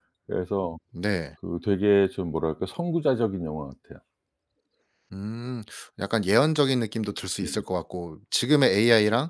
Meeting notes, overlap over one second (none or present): none